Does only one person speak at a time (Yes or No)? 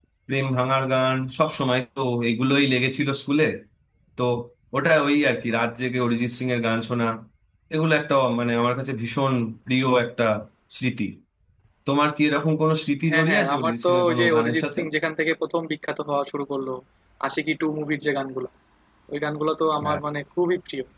No